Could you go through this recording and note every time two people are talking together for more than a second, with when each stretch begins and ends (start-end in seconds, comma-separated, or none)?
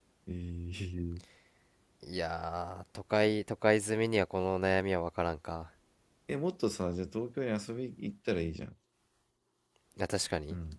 none